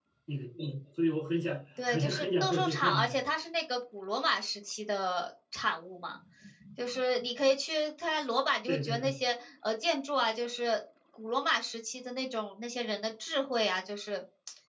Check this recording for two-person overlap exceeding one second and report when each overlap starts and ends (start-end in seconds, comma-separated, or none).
1.9-3.2